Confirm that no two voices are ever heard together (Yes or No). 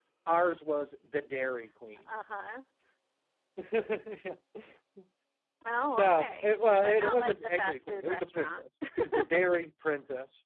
No